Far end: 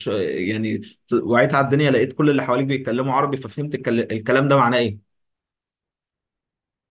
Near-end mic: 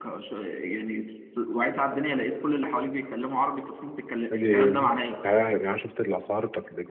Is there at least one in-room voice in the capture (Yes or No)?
Yes